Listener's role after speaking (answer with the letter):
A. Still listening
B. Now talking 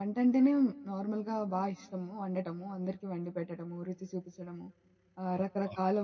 A